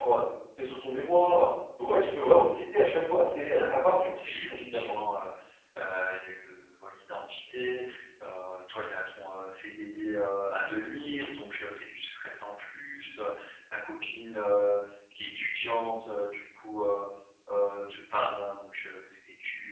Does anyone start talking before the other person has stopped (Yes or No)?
Yes